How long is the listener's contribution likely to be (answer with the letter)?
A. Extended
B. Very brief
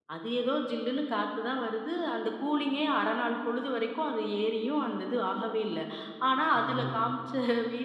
B